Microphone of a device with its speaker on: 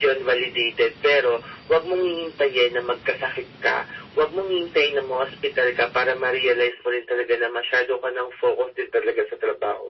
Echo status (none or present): present